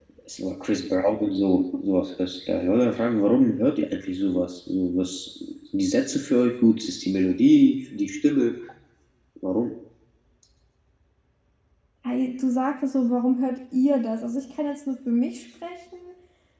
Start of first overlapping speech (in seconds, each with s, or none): none